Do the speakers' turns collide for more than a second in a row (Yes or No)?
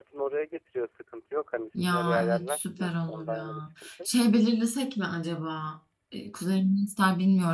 Yes